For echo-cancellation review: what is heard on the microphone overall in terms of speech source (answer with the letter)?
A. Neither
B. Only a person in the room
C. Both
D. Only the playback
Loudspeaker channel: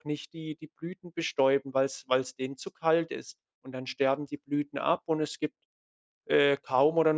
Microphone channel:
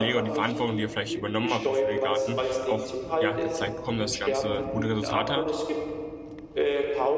C